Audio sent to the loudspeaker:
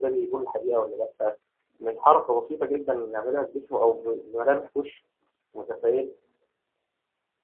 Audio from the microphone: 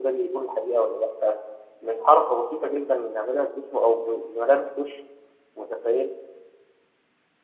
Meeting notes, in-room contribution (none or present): none